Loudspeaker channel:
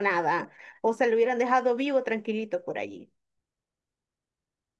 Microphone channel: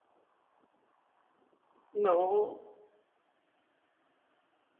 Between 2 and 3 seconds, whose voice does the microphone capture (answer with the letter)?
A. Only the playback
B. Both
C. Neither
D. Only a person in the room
D